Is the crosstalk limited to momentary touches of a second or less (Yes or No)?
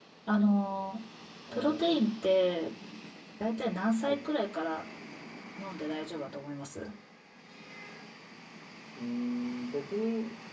Yes